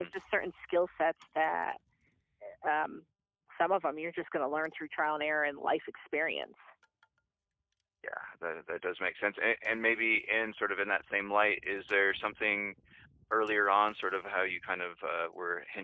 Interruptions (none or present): none